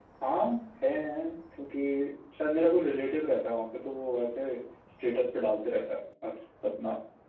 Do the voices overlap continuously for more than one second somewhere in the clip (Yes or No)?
No